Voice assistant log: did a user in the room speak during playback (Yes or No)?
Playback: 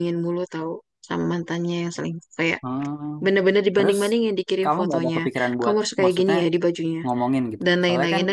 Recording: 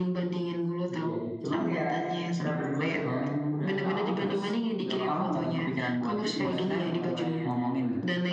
Yes